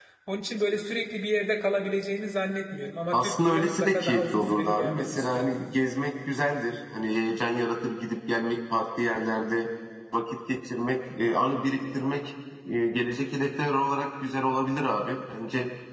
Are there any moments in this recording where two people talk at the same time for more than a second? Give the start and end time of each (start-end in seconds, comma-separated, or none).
3.1-5.6